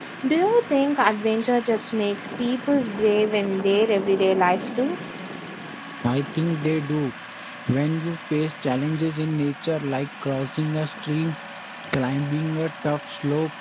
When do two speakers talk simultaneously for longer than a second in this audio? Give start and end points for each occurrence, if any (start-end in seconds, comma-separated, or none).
none